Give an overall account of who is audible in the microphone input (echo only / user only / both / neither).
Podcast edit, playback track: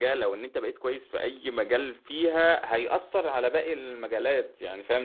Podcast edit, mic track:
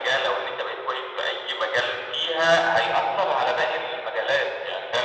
echo only